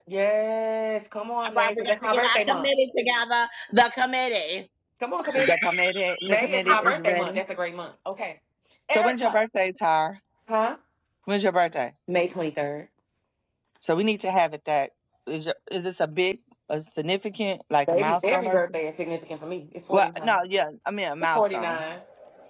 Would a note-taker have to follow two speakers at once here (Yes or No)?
Yes